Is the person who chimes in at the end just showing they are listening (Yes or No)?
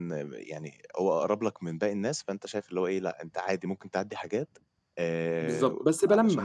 No